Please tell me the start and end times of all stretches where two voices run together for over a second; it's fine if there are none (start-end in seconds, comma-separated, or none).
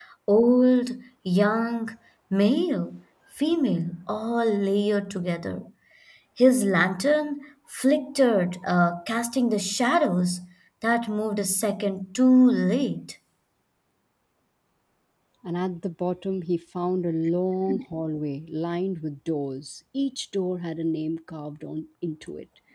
none